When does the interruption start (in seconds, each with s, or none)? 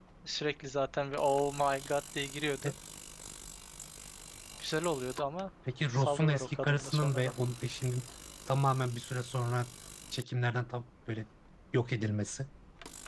6.0 s